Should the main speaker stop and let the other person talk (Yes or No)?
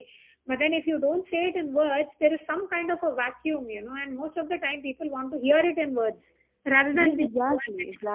Yes